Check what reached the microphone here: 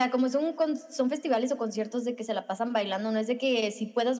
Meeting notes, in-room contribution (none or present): none